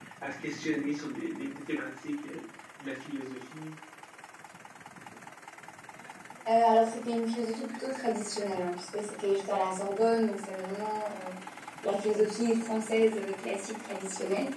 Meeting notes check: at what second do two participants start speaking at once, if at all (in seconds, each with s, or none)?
none